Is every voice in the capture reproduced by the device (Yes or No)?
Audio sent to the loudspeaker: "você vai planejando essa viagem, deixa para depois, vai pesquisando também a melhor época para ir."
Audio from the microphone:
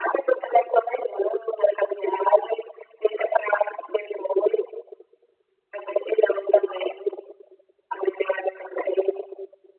Yes